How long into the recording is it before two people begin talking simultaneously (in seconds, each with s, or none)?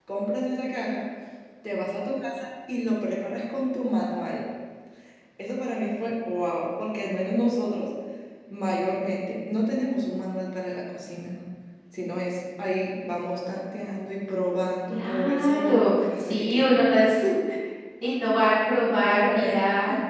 14.9 s